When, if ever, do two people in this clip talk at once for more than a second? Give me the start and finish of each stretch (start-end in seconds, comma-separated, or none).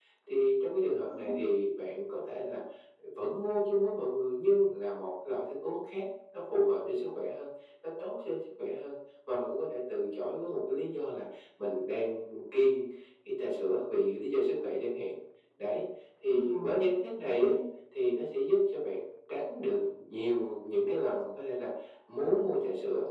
16.3-17.5